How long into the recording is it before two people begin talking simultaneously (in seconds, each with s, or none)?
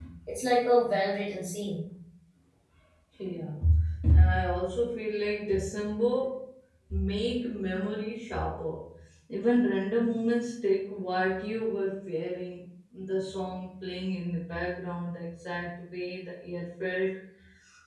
none